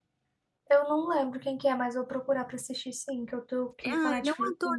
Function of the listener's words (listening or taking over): taking over